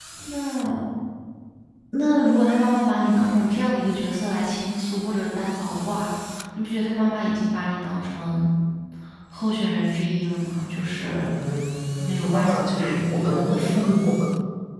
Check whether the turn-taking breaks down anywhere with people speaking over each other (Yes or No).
Yes